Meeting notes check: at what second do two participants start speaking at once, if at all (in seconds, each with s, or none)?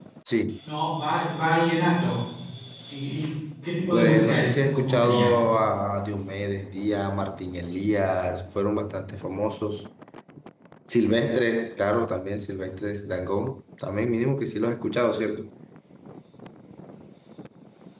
3.9 s